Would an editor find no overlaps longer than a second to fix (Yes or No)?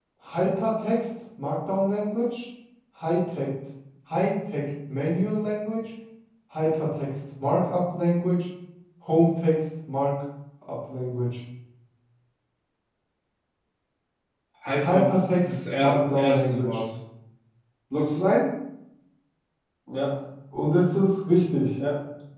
No